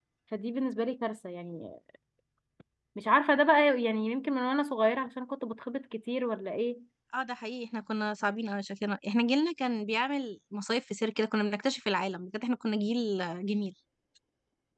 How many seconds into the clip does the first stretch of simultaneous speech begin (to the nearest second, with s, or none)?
none